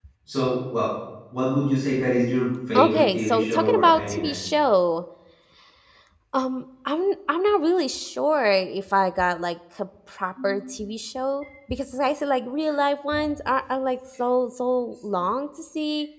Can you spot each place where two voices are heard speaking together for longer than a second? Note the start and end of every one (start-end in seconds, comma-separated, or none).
2.8-4.3